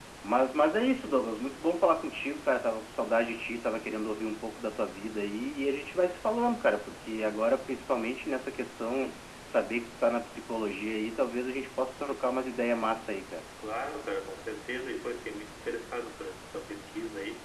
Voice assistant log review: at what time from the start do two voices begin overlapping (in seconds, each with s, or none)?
none